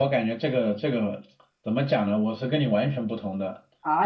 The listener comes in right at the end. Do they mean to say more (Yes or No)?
Yes